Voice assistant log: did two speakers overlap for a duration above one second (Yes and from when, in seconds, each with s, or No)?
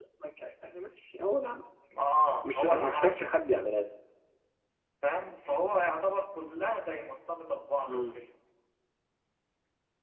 Yes, from 2.4 s